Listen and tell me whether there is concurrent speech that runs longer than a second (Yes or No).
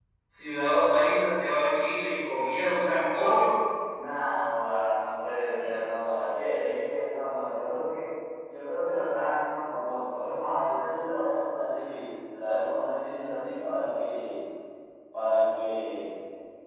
No